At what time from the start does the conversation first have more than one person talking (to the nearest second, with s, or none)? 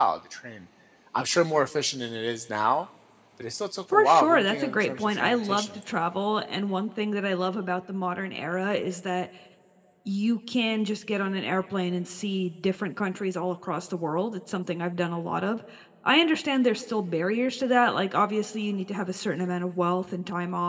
4 s